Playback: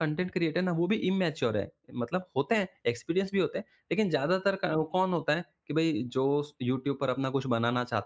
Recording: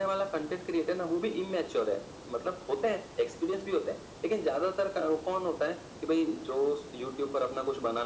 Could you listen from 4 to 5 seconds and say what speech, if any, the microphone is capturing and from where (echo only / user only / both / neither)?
echo only